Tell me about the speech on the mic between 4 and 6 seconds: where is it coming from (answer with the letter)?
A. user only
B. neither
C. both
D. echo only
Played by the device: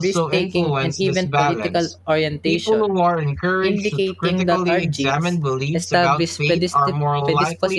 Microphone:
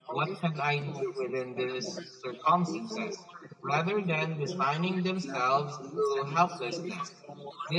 C